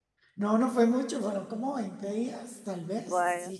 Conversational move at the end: listening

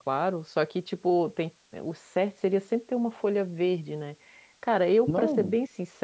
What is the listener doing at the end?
listening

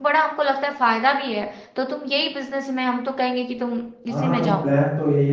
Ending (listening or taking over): taking over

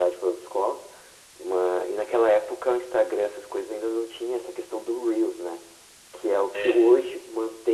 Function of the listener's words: listening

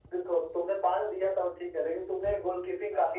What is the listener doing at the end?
listening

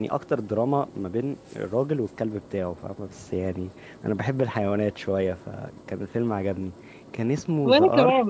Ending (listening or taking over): listening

